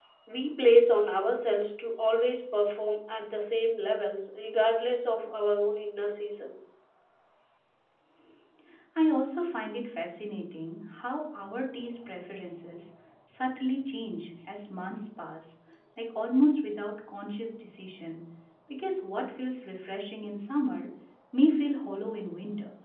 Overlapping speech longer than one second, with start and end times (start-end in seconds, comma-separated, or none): none